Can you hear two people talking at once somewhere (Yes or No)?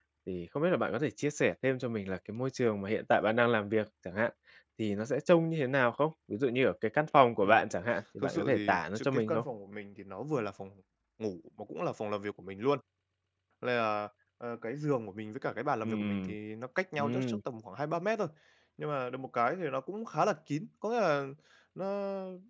Yes